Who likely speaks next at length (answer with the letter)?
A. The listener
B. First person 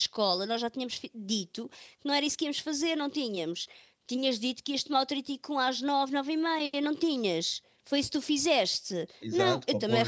A